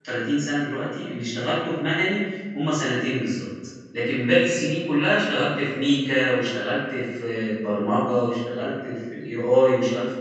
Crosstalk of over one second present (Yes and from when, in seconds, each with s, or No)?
No